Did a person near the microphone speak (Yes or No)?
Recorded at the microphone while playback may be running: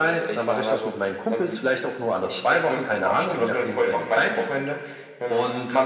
No